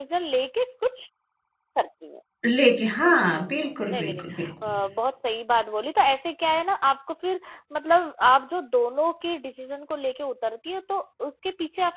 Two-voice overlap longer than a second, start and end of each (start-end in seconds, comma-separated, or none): 3.0-4.5